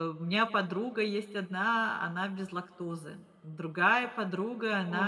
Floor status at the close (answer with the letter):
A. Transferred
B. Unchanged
B